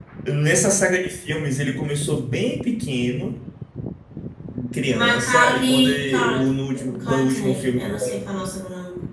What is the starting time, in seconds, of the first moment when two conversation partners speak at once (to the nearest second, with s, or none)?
5 s